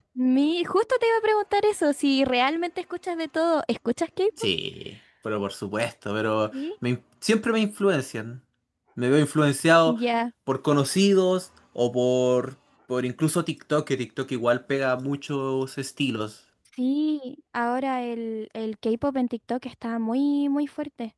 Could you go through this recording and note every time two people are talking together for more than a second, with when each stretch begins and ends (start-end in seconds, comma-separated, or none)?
none